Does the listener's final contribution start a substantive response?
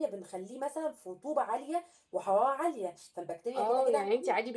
Yes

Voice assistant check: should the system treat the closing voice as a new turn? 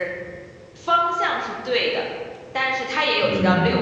No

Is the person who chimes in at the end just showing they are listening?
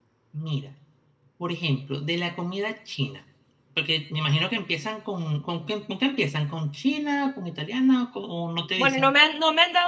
No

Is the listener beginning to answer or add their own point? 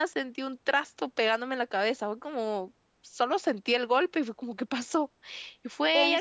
No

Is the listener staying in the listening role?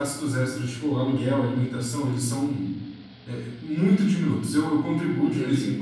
Yes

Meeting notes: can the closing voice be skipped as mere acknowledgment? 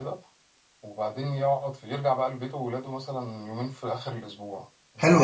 No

